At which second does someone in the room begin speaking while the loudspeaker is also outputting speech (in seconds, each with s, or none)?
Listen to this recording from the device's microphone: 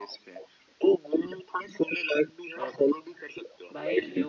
2.6 s